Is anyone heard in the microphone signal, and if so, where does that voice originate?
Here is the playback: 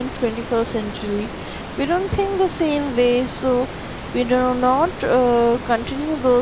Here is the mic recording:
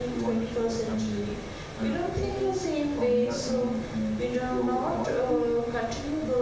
both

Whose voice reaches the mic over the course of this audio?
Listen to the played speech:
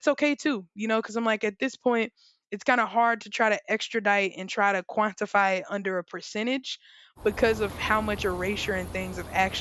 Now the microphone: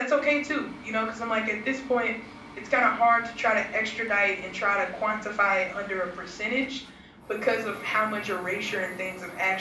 echo only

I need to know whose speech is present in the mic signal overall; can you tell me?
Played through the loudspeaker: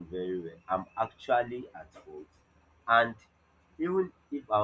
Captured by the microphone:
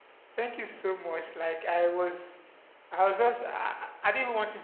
user only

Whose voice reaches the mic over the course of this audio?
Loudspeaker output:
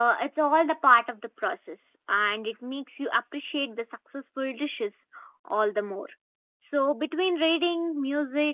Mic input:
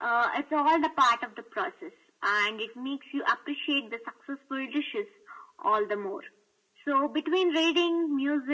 echo only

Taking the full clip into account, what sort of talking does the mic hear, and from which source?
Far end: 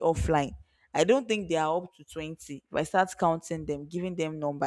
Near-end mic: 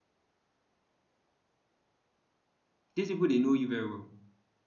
user only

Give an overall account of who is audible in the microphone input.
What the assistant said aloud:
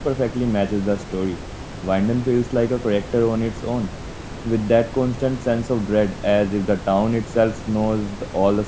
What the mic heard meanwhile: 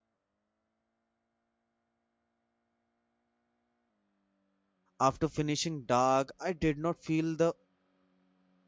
user only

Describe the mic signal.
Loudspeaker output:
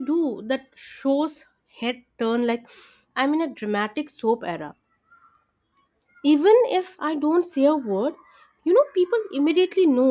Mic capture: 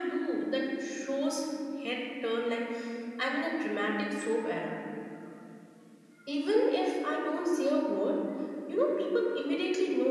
echo only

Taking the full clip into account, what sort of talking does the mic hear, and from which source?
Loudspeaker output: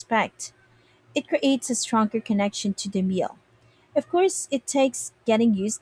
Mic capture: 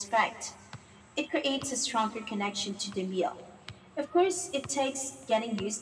echo only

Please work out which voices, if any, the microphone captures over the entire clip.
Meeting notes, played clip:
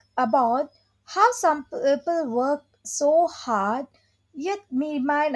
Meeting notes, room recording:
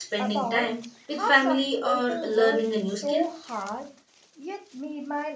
both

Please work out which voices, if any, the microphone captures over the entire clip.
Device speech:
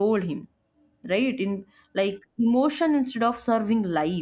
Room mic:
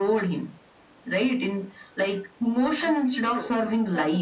both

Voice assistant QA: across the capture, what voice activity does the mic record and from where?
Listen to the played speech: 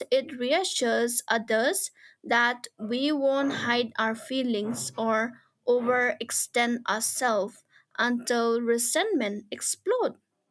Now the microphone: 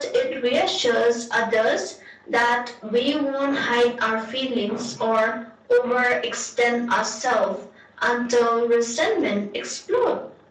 echo only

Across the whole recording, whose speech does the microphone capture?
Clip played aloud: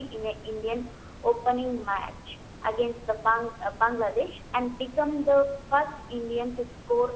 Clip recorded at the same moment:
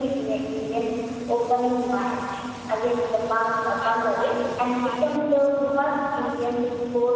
both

